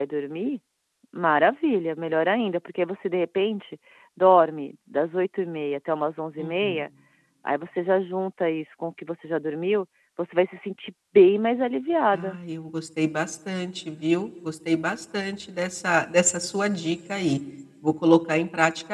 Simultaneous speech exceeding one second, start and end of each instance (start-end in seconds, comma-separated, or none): none